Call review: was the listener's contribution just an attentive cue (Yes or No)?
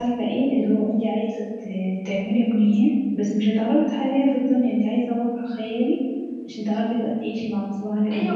No